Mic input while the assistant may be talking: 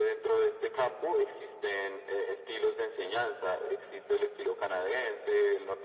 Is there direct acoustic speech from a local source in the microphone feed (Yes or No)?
No